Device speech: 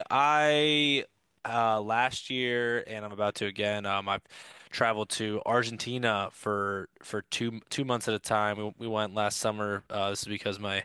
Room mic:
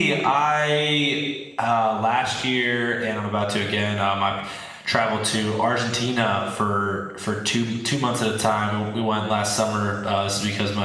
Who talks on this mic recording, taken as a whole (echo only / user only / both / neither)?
echo only